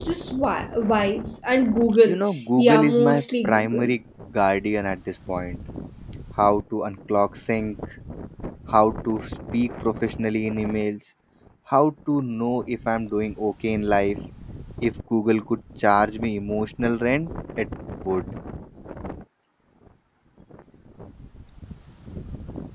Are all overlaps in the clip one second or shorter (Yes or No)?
No